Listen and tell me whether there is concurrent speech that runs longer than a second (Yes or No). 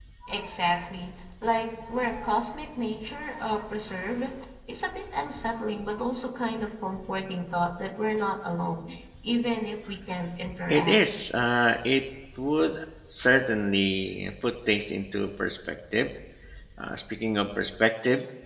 No